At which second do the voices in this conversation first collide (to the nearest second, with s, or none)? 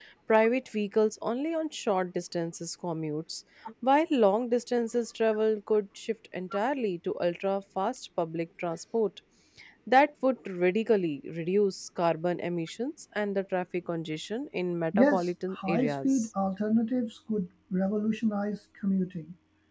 15 s